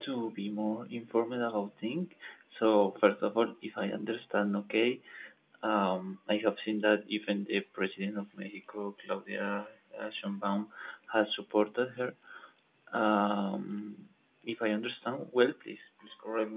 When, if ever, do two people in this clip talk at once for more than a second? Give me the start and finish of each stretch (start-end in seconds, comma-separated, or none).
none